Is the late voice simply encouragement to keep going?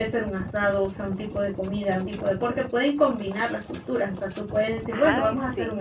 Yes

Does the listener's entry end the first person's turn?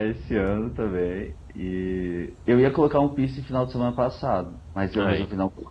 No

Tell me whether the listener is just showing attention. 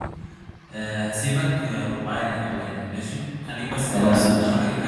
Yes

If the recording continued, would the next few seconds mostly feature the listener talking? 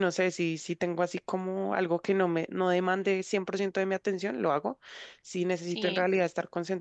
No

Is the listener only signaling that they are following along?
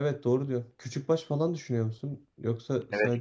No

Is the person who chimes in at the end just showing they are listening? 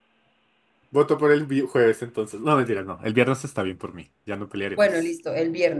No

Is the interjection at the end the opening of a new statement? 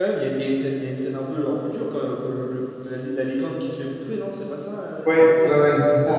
Yes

